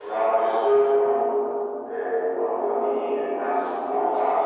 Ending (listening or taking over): listening